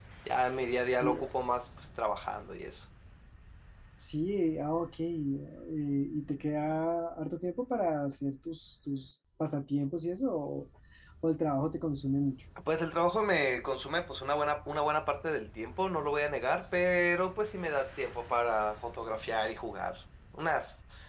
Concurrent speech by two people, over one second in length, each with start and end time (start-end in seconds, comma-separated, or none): none